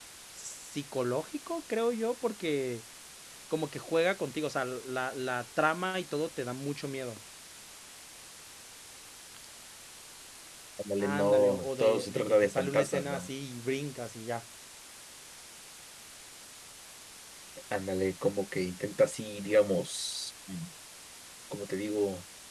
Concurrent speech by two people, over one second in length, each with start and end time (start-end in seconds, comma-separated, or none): 11.0-13.3